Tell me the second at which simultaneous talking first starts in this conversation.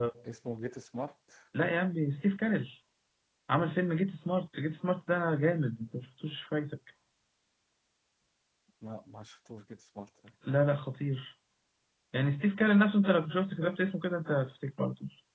none

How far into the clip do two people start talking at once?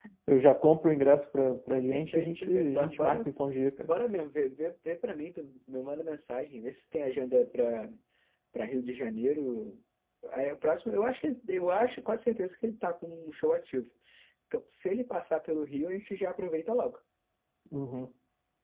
1.7 s

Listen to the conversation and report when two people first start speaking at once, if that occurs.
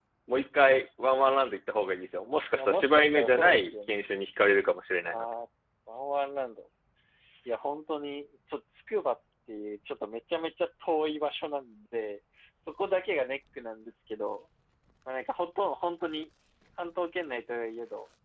2.5 s

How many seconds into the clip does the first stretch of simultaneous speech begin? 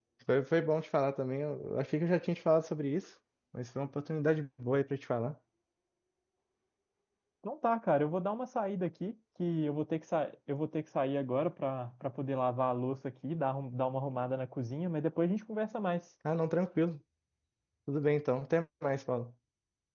none

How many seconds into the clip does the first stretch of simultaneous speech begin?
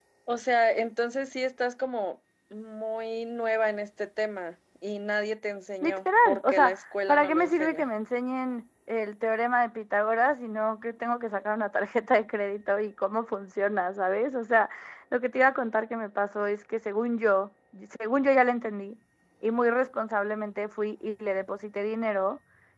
5.8 s

